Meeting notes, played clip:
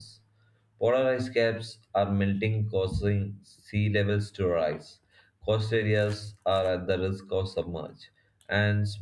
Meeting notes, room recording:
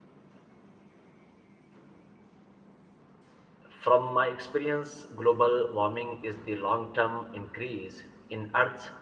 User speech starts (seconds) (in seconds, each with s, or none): 3.7 s